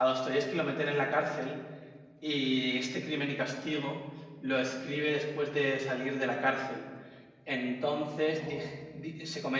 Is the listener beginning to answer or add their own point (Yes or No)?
No